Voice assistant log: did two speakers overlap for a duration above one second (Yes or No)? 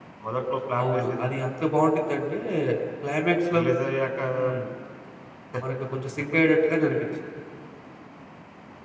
No